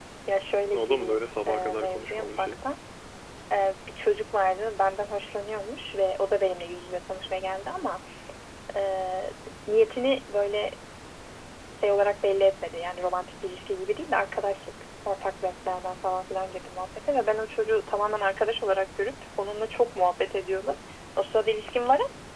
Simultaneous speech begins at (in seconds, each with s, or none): 0.7 s